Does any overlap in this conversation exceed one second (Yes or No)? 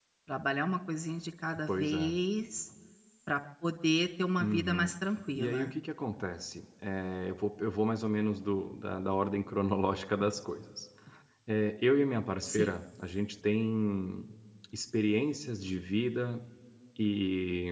No